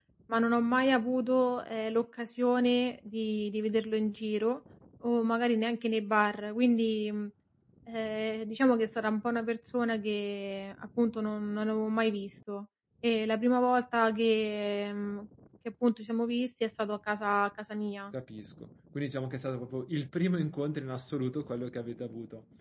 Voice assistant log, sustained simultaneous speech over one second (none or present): none